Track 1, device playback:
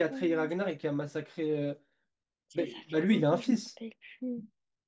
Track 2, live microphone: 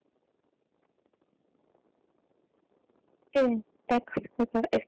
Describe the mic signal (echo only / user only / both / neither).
user only